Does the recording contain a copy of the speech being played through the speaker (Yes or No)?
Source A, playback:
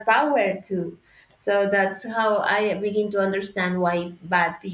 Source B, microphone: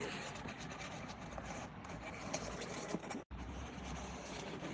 No